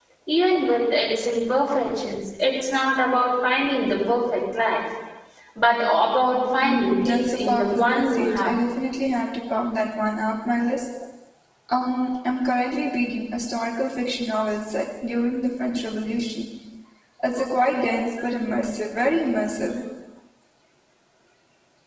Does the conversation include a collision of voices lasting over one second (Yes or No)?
Yes